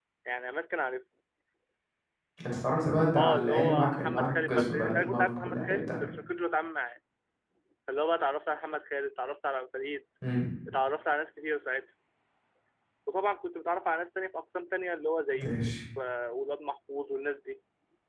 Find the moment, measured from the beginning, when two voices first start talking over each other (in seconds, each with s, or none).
3.2 s